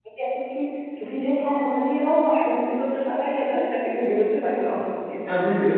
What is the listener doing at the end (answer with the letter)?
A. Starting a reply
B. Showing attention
A